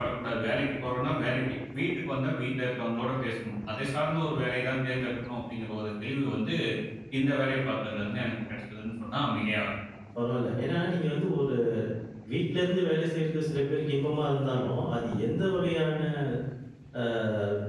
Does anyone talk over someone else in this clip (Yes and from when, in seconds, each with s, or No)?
No